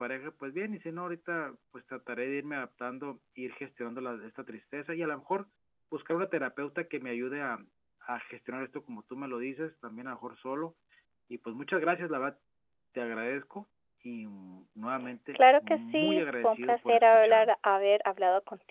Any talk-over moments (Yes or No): Yes